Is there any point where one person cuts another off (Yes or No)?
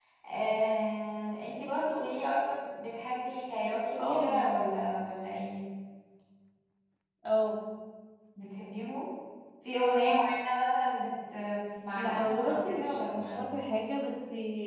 Yes